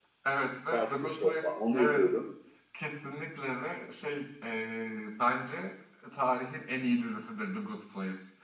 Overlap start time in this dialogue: 0.7 s

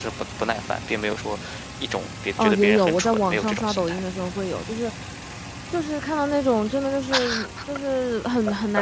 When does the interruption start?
2.4 s

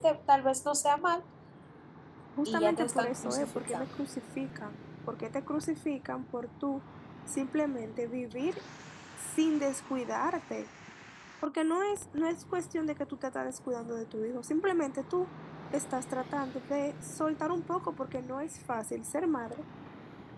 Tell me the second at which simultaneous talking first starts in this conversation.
2.5 s

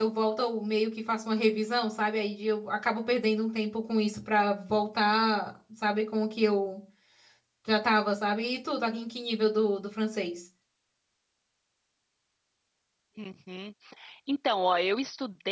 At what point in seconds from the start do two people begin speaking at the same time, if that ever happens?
none

